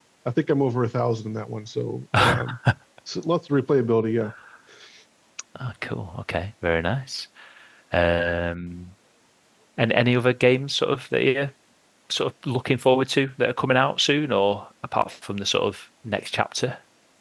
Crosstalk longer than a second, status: none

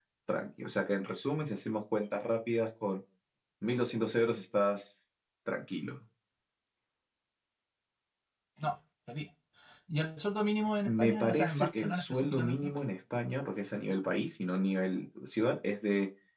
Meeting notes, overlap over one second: present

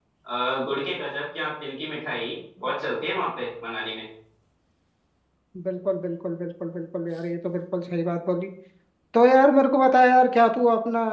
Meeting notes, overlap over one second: none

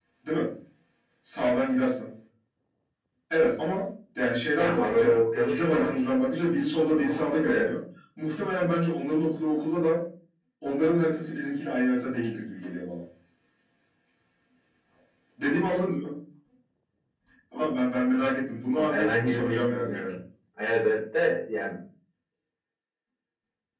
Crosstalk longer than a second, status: present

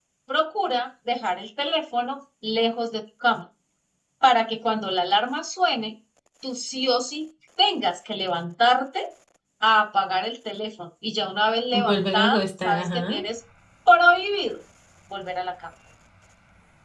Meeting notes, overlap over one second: present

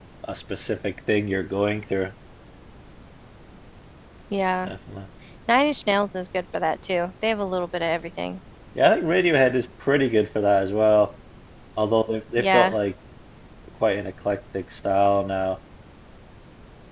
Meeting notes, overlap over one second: none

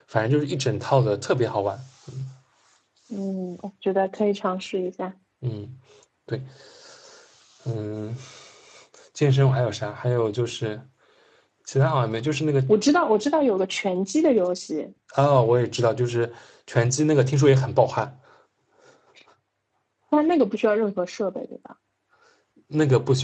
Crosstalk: none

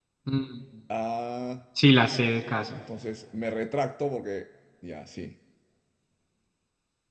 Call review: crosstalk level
none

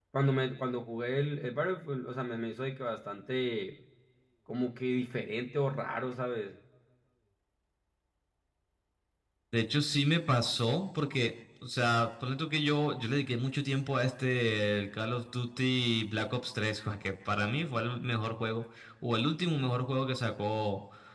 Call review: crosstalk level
none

